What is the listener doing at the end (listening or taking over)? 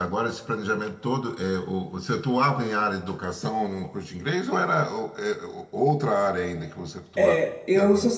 taking over